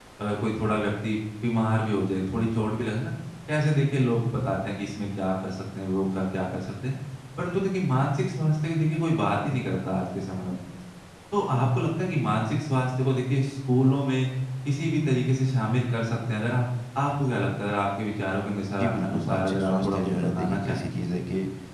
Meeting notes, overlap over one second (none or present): present